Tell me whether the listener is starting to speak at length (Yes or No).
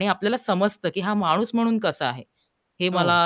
No